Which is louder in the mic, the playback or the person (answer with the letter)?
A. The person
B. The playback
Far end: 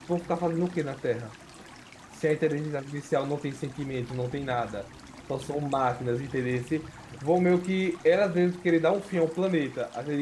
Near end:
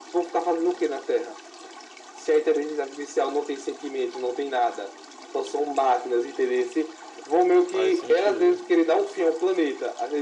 B